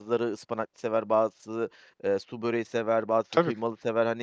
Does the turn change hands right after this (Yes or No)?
No